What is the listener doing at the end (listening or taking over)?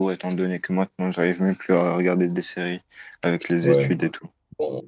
taking over